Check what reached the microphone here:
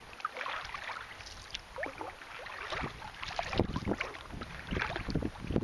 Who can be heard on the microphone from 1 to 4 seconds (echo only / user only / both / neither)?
neither